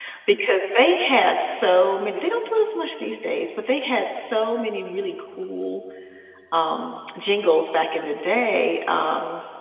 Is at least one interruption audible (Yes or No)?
No